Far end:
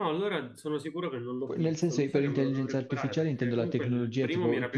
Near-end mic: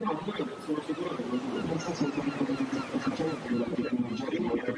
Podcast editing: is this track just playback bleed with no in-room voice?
Yes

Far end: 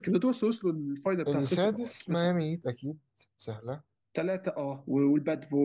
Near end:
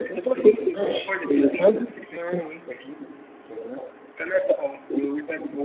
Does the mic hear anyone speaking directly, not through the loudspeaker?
Yes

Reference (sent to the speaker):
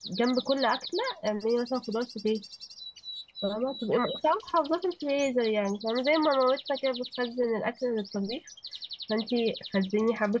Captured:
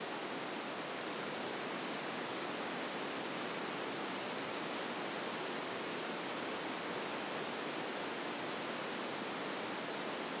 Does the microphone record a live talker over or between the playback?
No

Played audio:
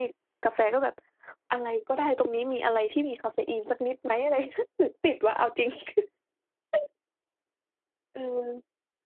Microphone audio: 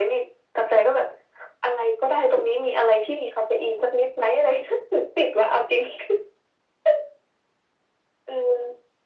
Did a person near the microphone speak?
No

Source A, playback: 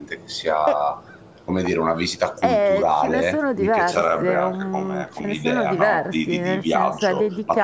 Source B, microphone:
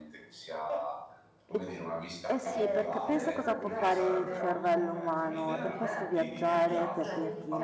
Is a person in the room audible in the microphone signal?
Yes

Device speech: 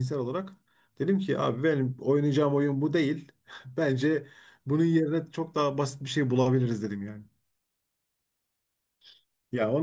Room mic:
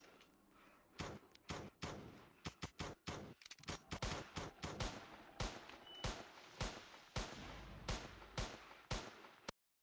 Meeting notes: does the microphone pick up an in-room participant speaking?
No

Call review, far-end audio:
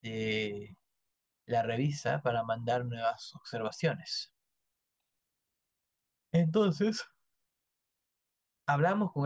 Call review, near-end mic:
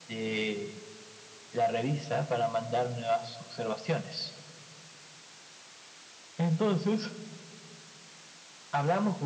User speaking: No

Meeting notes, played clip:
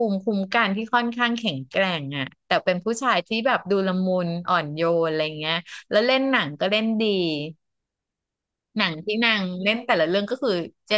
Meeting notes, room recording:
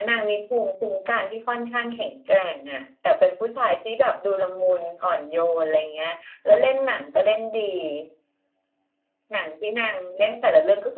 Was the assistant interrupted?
No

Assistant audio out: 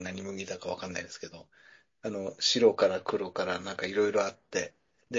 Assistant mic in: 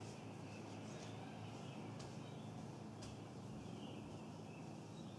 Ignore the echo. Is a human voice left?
No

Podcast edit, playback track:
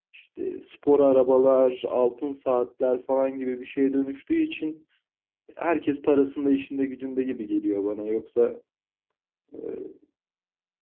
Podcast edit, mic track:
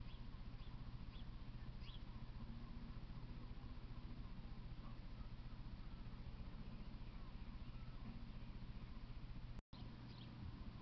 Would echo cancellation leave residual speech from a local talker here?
No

